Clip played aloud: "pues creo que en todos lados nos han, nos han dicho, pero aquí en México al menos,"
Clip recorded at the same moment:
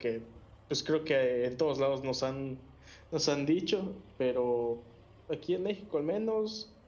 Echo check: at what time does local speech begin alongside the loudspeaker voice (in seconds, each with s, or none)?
none